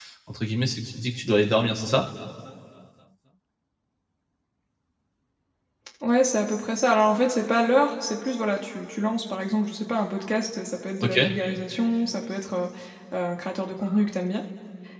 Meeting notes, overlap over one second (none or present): none